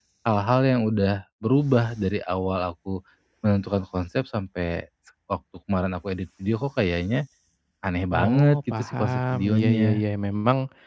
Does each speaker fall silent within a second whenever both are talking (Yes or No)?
No